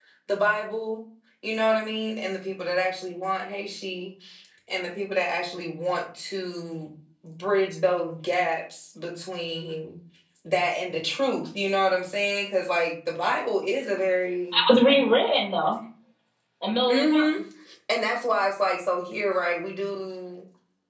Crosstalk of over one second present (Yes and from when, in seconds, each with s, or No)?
No